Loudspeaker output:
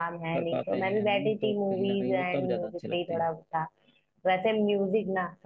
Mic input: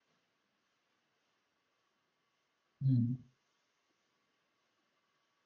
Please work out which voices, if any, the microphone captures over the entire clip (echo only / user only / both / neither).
user only